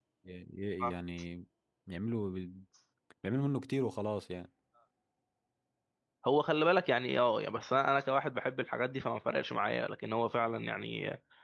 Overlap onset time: none

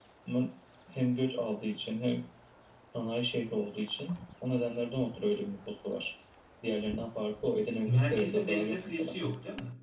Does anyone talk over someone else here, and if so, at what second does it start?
8 s

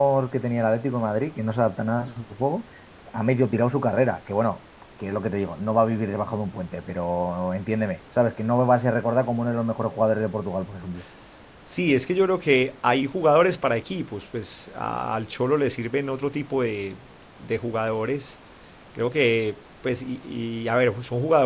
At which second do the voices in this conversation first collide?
none

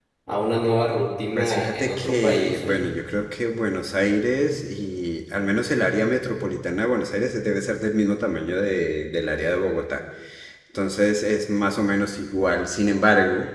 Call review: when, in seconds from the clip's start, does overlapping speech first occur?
1 s

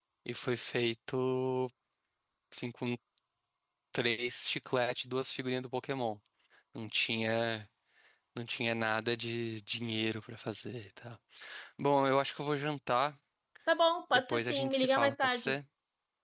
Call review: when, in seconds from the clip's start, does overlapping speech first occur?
14 s

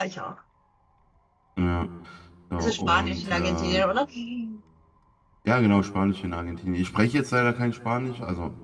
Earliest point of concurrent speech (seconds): 3 s

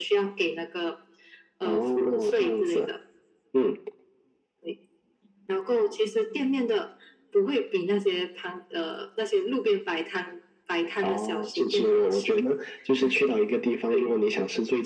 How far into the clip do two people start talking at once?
2 s

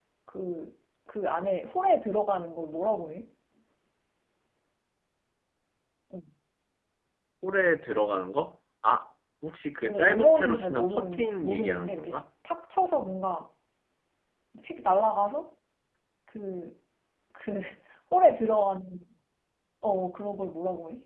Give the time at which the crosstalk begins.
10 s

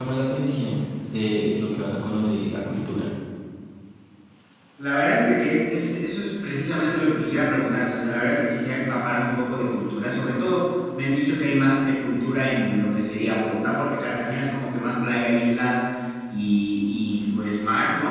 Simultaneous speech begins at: none

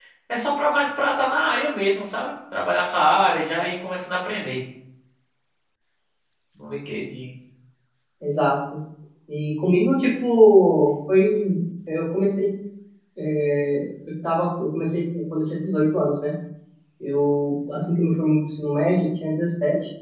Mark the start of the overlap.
none

